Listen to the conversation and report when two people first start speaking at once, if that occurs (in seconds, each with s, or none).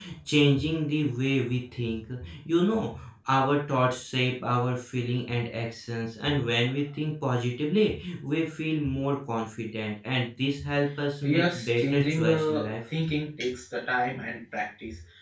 11.2 s